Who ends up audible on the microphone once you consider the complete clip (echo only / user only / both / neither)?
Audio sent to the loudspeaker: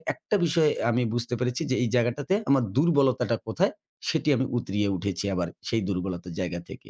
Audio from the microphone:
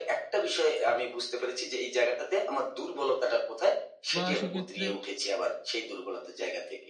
both